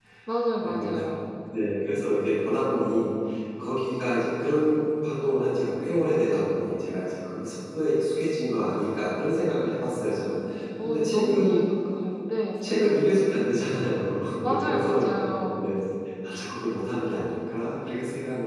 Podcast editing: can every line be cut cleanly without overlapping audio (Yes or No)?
No